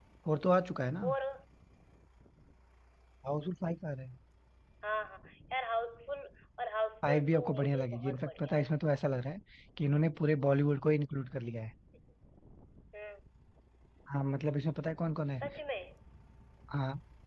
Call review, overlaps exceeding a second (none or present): present